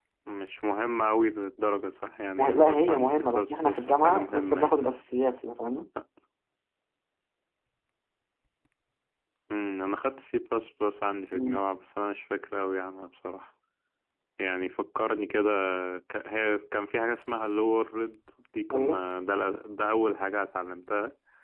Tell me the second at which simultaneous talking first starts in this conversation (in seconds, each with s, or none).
2.4 s